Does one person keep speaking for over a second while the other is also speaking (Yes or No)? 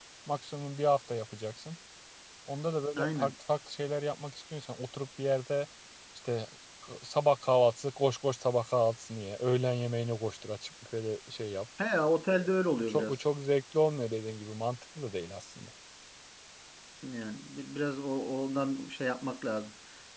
No